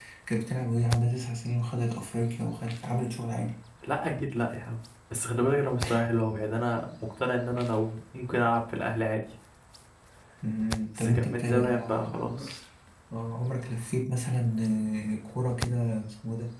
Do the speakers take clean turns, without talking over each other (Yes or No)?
No